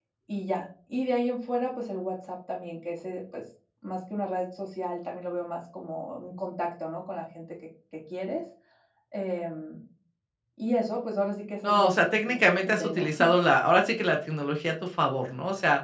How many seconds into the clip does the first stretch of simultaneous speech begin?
11.6 s

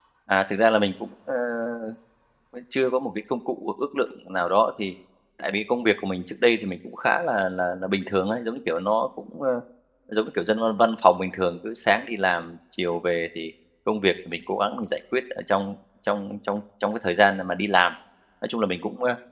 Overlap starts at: none

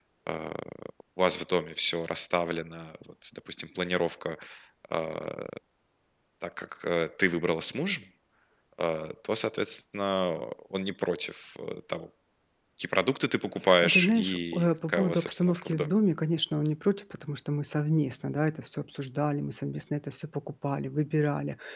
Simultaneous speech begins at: 13.6 s

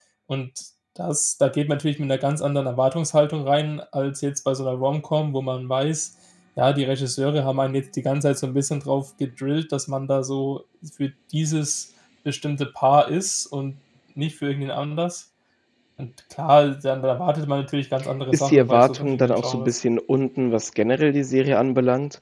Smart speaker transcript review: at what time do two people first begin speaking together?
18.3 s

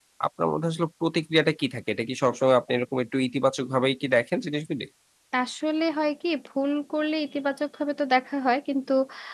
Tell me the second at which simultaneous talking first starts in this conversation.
none

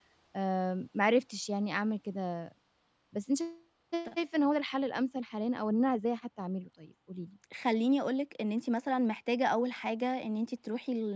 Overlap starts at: none

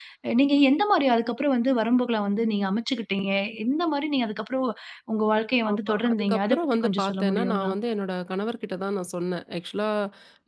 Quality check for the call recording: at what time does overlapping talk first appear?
5.7 s

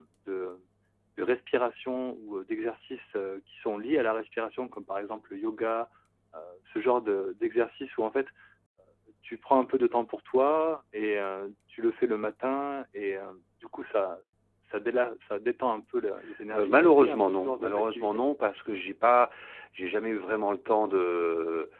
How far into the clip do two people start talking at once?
16.5 s

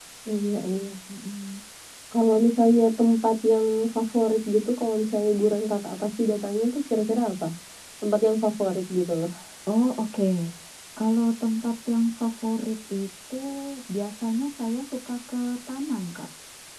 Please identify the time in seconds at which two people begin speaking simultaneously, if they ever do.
none

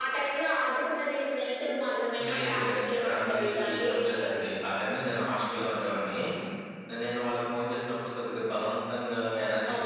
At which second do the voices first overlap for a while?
2.2 s

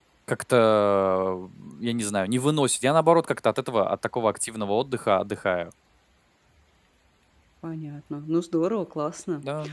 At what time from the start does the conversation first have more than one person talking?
none

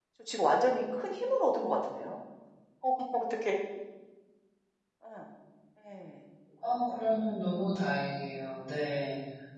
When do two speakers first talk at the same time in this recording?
none

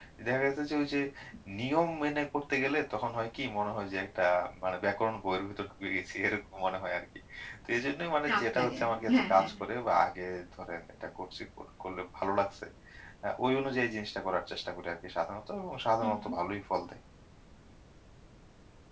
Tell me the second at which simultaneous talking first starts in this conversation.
8.3 s

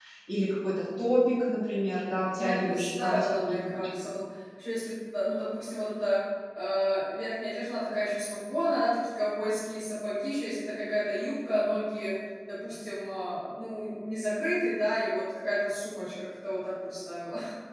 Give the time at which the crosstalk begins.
2.4 s

